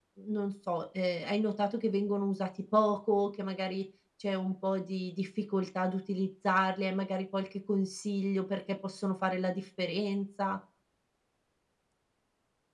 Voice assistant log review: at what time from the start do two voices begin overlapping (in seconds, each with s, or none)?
none